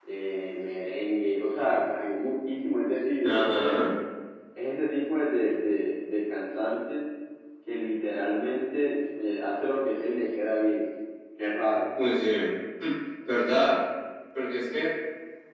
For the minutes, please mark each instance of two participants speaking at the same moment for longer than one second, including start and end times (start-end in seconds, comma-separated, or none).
none